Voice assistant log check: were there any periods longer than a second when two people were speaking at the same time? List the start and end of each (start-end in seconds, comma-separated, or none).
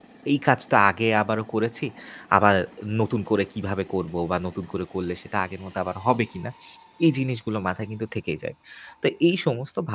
none